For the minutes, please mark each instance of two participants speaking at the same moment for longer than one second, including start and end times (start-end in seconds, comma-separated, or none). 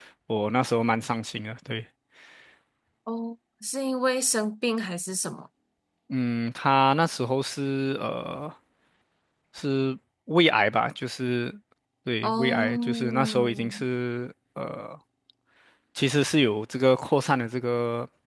12.2-13.7